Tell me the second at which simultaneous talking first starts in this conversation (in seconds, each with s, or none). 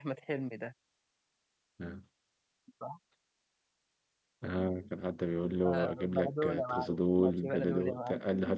5.6 s